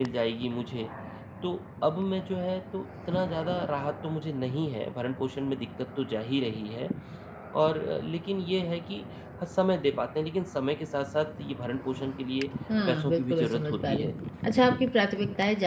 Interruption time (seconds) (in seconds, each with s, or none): 12.7 s